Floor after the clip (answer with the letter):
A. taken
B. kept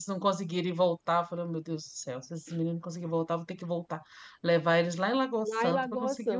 A